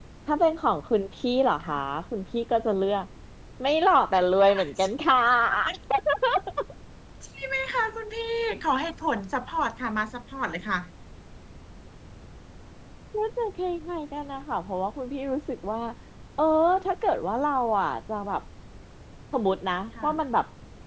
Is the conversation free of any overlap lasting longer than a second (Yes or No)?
Yes